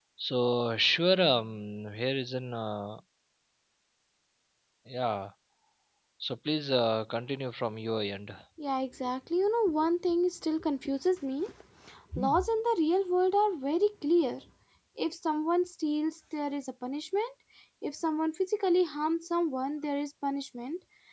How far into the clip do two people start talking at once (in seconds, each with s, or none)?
none